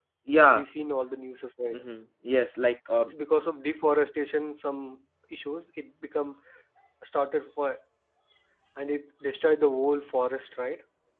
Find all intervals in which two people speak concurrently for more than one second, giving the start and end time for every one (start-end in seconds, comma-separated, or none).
none